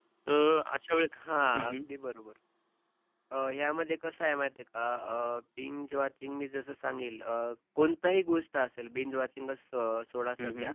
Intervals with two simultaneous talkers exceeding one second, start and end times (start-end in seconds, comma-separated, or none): none